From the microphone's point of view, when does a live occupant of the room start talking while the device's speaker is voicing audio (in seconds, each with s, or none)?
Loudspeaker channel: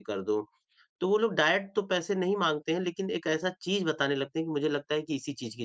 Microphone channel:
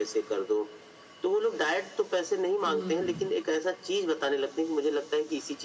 2.7 s